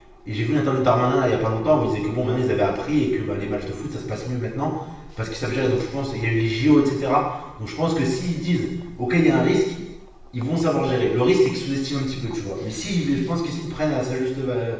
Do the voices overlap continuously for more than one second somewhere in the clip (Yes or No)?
No